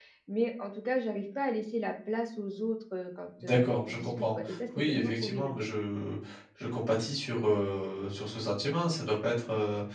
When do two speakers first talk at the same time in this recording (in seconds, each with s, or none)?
3.4 s